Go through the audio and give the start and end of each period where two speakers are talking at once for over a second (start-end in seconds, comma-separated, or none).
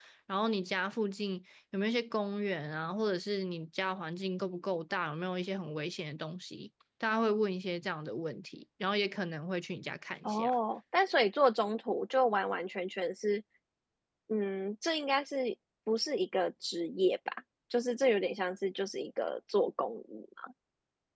none